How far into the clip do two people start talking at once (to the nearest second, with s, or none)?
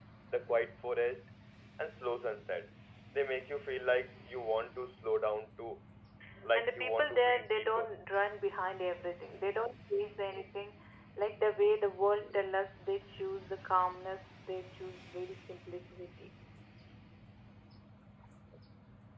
7 s